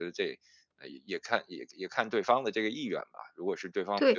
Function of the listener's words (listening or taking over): taking over